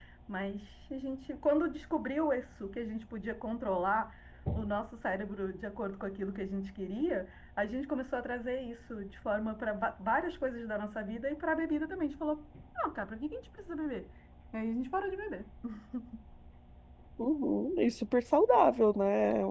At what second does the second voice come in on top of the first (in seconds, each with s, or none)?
none